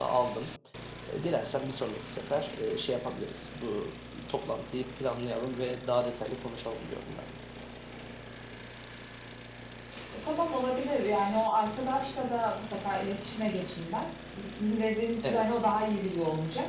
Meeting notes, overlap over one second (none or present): none